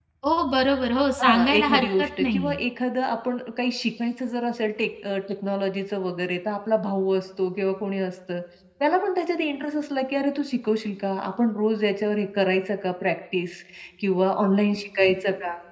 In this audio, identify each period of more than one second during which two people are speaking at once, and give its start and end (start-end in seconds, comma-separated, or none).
1.2-2.6